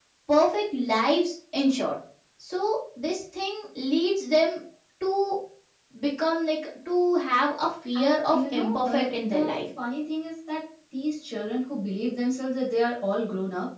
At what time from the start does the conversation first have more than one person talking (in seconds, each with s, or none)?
8.0 s